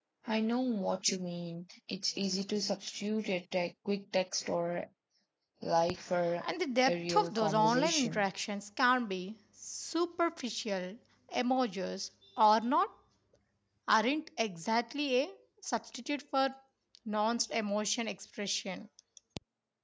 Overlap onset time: 6.8 s

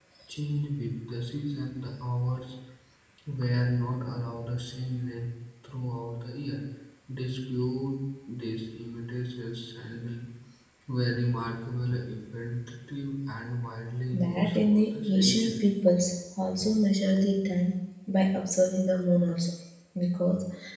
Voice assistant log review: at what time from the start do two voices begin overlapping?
14.1 s

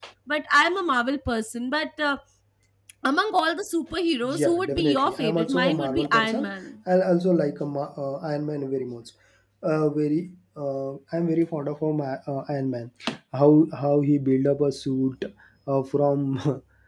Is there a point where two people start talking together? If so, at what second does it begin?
4.2 s

